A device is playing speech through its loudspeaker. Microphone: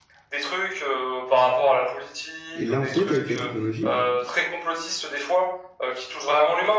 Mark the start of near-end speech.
3 s

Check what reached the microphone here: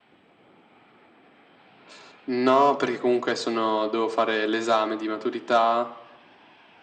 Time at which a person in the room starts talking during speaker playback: none

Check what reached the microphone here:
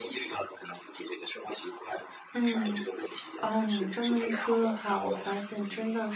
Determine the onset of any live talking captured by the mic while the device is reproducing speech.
2 s

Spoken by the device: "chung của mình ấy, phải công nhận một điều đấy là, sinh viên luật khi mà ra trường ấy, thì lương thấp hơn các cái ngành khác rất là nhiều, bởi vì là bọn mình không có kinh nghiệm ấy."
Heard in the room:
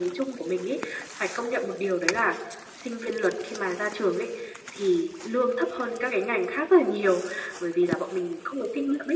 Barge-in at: none

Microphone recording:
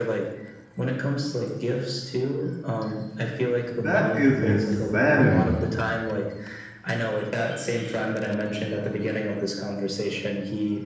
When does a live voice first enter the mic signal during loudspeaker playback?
4 s

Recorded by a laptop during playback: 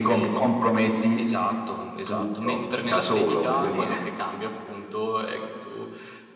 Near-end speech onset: none

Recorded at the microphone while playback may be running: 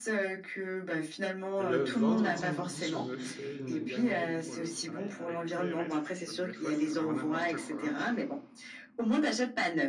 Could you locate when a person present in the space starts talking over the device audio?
2 s

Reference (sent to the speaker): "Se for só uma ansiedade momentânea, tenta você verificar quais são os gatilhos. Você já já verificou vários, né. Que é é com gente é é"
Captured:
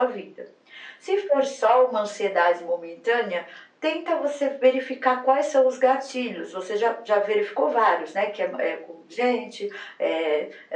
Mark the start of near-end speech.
none

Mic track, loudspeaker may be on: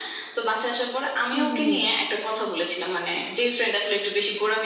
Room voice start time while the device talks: 1 s

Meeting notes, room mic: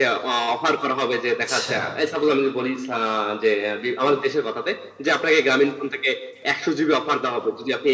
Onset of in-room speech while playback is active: 1 s

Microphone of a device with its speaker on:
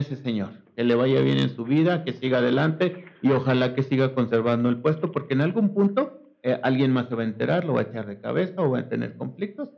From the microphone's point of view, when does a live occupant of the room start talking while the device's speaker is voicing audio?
none

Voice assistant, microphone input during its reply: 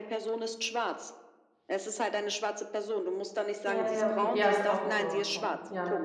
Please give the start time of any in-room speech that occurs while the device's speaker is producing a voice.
4 s

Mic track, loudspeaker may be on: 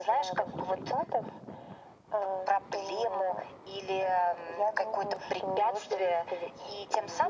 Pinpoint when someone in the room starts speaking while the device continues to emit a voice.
none

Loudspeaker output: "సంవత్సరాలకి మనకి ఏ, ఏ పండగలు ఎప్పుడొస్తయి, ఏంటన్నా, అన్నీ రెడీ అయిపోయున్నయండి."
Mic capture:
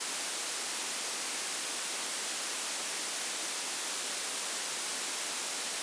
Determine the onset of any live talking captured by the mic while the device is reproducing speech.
none

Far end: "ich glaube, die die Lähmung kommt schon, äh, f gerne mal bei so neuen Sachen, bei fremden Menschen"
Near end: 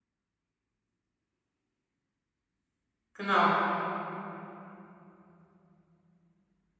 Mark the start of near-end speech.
3 s

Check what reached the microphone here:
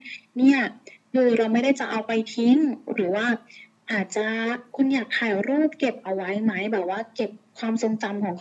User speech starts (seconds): none

